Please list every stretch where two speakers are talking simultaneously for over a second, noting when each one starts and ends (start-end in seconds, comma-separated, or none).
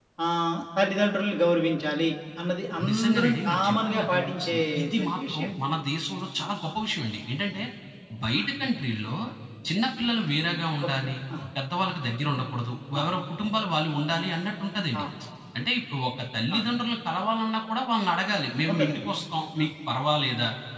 2.9-5.5